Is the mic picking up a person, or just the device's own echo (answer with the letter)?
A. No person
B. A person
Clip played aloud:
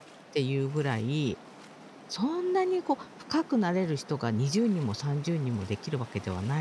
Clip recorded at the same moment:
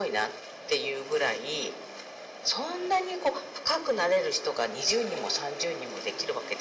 A